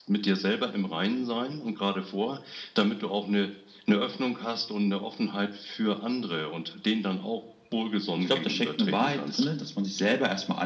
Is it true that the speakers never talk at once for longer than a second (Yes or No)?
No